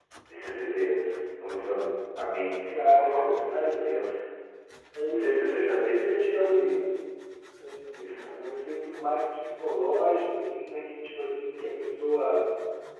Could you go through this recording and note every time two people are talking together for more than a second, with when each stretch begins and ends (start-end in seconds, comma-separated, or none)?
2.7-3.9, 5.1-6.8